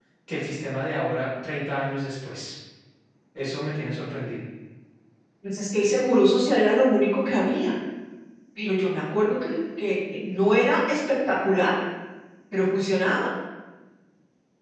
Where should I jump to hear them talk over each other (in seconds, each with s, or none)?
none